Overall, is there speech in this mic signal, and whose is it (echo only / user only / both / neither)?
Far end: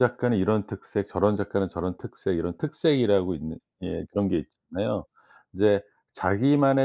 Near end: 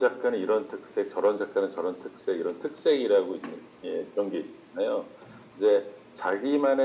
echo only